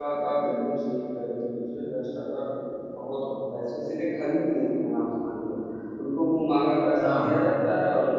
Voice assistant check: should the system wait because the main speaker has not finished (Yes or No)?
Yes